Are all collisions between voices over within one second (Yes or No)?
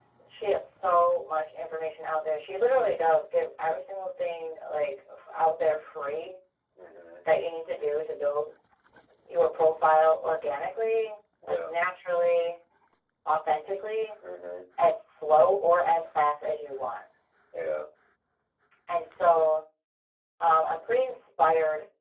Yes